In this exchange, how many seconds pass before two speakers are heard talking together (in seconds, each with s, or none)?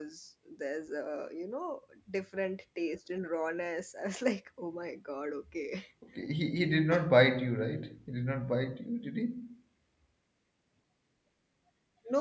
none